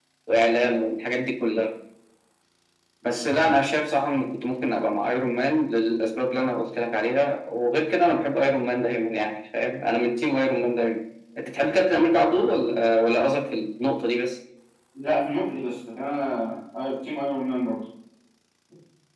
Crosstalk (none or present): none